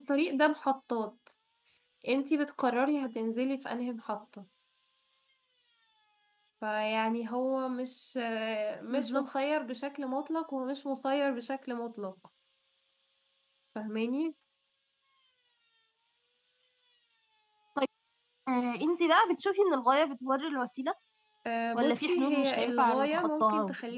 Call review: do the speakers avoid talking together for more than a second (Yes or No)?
No